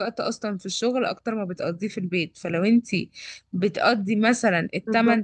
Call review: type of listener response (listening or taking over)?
listening